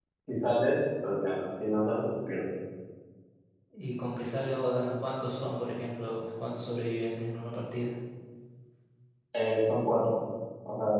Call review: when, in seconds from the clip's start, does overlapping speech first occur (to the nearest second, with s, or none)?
none